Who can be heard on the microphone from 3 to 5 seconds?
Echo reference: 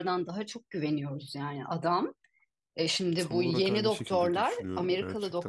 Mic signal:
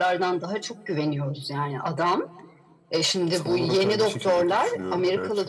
echo only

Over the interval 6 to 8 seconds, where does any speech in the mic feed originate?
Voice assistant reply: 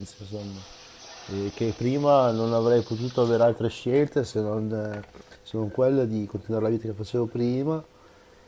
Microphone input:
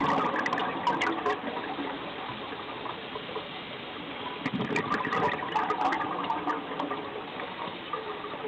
neither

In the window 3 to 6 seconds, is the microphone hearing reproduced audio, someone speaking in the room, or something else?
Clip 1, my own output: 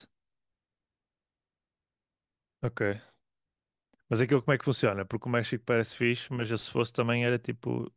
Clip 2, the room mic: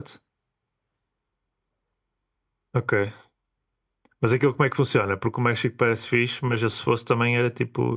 echo only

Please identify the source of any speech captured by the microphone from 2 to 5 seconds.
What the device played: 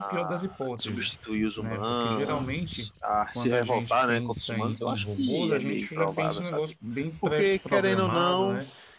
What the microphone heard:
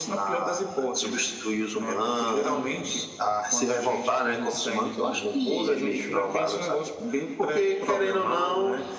echo only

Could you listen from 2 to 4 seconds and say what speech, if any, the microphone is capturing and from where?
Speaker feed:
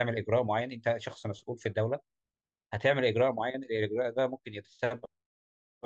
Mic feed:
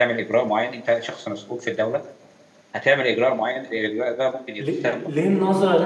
echo only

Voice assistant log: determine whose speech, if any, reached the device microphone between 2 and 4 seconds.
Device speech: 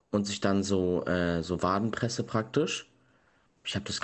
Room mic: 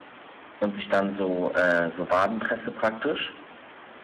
echo only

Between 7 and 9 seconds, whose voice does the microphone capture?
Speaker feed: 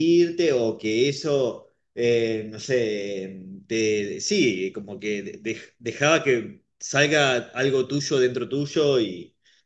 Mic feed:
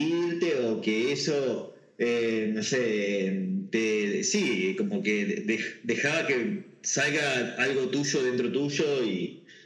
echo only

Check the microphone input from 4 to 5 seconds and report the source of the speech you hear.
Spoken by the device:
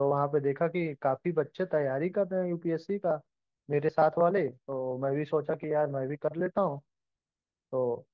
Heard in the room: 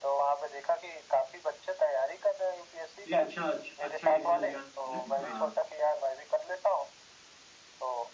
both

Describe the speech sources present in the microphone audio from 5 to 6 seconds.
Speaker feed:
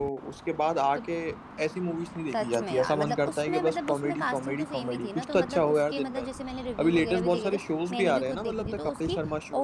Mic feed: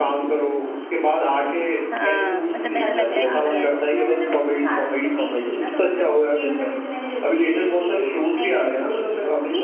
echo only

